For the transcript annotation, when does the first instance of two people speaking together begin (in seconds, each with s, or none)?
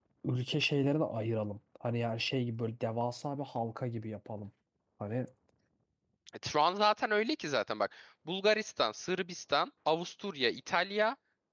none